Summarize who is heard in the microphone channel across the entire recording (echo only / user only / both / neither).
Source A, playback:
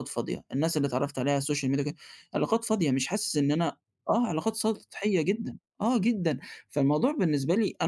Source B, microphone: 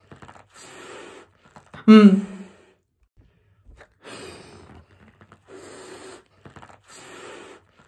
user only